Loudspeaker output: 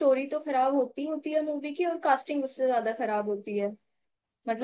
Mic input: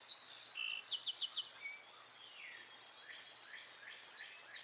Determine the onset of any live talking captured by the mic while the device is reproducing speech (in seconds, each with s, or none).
none